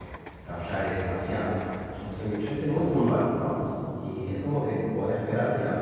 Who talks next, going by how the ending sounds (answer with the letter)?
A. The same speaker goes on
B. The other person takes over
A